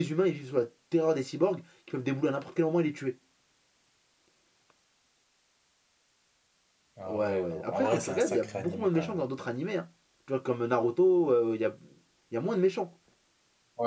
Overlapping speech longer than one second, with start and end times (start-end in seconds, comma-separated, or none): 7.1-9.2